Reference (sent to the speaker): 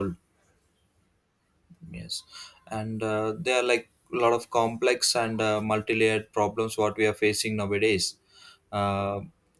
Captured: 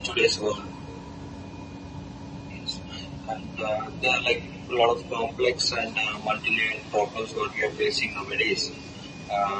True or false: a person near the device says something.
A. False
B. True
A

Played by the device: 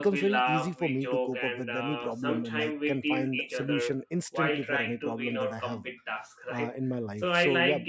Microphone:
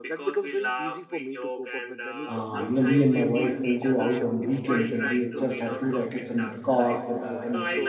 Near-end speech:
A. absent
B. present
B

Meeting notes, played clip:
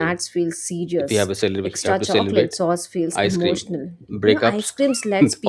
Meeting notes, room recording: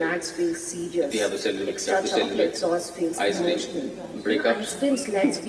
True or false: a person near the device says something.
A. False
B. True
B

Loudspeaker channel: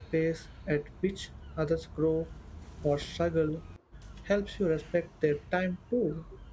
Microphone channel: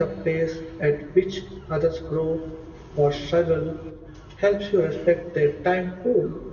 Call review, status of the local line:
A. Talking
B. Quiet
B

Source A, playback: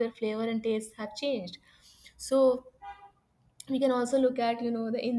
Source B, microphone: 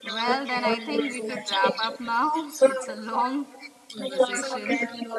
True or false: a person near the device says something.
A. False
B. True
B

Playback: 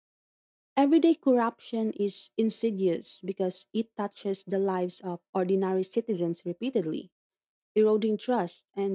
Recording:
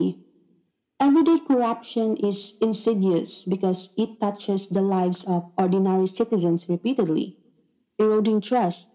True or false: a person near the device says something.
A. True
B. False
B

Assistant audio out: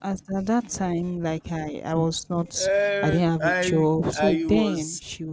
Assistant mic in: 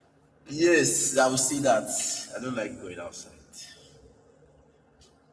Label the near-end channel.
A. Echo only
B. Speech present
B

